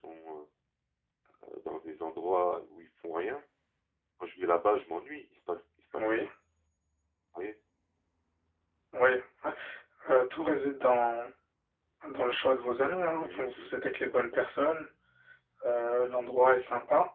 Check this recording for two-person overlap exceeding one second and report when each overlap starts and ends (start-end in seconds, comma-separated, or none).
none